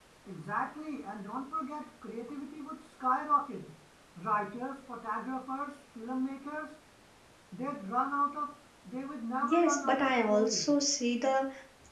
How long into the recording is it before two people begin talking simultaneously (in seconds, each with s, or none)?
9.4 s